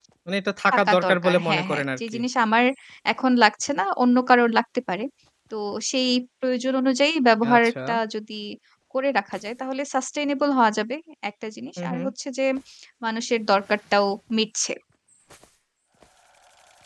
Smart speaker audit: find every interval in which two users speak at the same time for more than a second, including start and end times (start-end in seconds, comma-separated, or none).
0.7-2.2